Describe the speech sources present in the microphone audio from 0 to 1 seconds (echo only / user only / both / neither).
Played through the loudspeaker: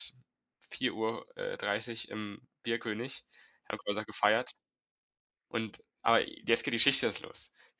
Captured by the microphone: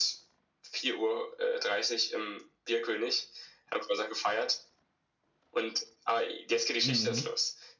echo only